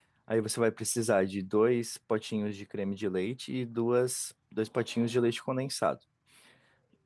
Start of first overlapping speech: none

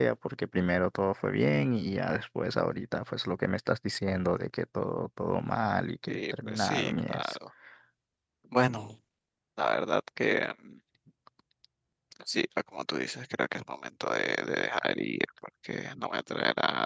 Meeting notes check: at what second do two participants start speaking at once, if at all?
6.1 s

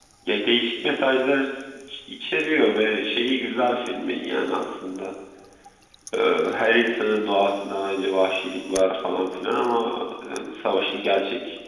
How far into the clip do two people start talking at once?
none

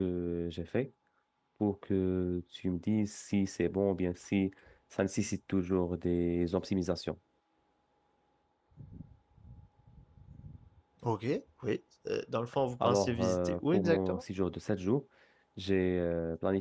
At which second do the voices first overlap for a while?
12.8 s

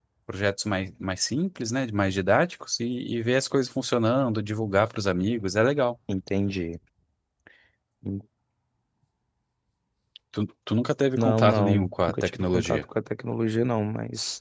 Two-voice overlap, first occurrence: 11.2 s

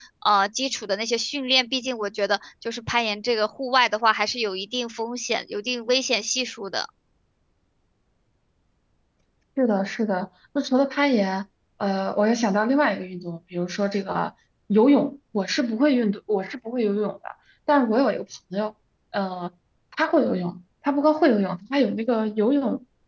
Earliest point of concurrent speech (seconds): none

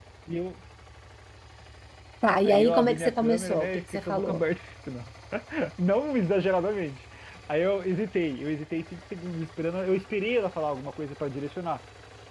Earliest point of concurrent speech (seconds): 2.4 s

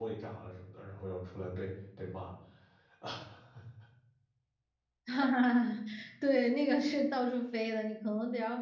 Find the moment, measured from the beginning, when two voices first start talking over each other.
none

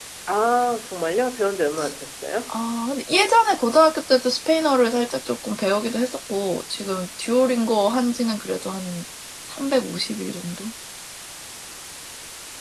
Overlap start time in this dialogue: none

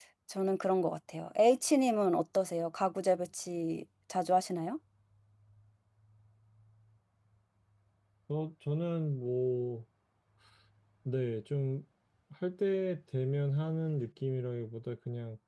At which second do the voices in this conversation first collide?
none

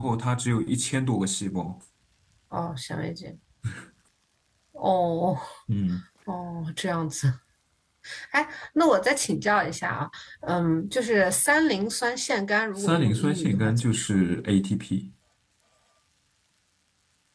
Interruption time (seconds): 12.8 s

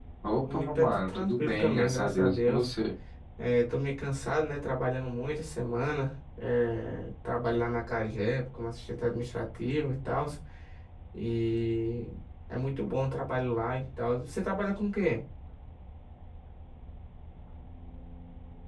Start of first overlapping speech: 0.5 s

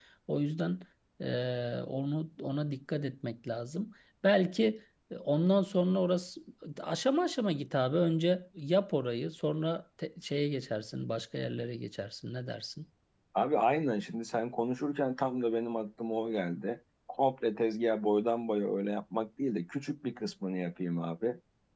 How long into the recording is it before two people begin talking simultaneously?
none

